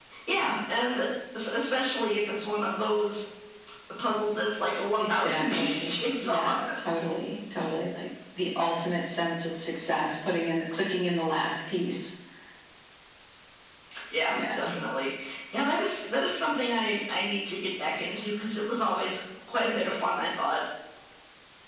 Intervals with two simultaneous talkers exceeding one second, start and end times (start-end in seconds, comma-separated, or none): 5.0-6.5